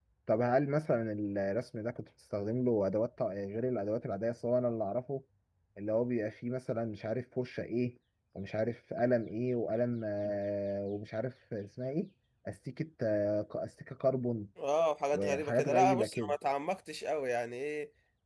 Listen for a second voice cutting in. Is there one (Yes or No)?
Yes